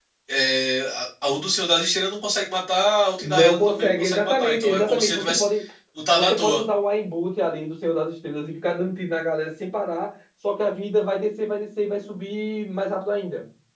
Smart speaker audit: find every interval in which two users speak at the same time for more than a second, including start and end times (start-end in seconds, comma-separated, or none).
3.2-5.4